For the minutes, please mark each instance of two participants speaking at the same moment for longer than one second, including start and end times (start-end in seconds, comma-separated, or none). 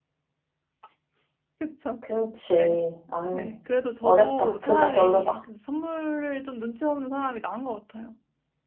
4.0-5.4